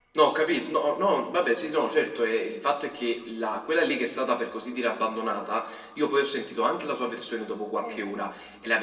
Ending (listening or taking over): listening